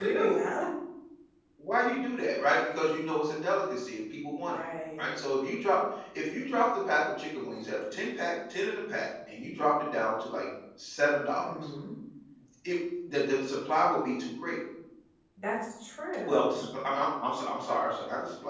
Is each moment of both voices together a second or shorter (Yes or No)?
Yes